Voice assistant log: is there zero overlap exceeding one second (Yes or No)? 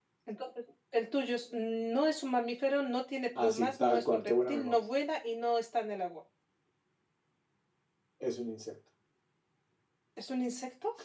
No